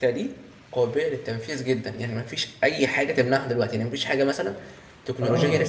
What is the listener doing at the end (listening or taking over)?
listening